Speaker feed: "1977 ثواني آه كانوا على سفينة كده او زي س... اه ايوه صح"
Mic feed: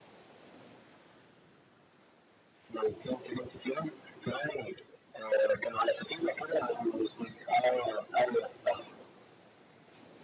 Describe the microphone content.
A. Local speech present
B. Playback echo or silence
B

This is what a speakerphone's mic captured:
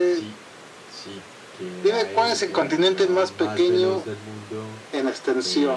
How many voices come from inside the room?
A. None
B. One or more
B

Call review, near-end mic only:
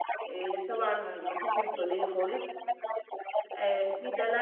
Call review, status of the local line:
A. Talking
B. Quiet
A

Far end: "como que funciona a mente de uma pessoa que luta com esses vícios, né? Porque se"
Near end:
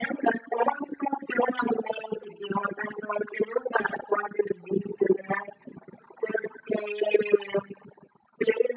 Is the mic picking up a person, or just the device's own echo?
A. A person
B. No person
B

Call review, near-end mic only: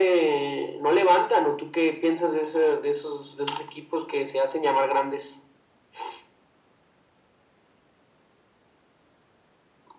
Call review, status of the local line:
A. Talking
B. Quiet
B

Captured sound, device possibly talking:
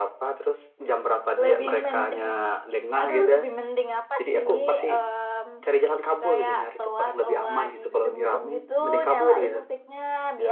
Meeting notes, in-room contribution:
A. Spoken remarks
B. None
B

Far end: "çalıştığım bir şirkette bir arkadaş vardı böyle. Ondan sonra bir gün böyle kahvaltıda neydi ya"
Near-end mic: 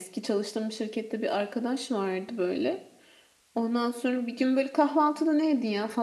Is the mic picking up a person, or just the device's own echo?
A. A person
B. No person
B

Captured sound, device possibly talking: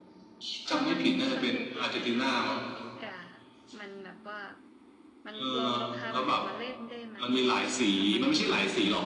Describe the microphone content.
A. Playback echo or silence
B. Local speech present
B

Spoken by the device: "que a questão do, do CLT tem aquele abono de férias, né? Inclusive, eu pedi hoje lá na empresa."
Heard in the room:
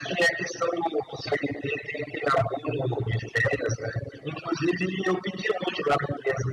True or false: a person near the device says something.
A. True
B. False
B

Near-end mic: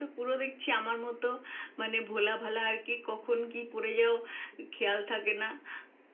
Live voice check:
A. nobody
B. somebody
A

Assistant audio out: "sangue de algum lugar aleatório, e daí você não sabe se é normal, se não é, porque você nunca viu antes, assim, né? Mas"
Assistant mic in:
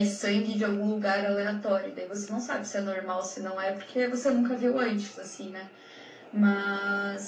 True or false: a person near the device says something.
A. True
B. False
B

